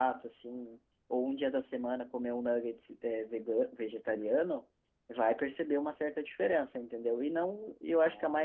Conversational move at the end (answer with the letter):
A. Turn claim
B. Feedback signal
B